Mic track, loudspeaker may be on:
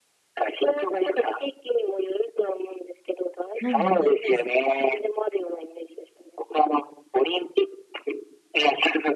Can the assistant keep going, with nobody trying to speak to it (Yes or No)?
No